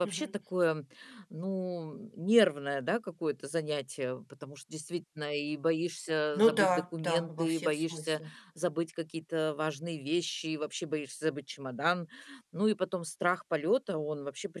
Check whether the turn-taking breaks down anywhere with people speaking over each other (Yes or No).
Yes